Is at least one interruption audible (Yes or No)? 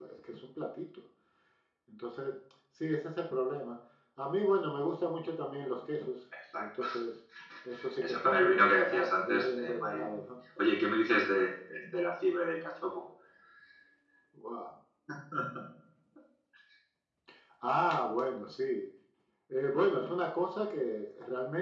Yes